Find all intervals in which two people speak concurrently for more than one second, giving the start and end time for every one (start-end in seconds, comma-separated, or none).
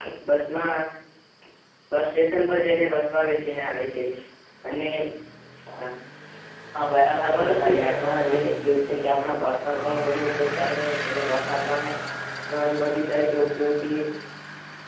7.2-8.5